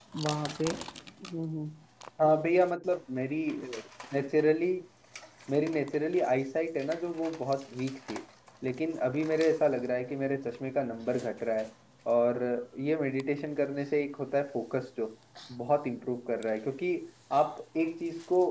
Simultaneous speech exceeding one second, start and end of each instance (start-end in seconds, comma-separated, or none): none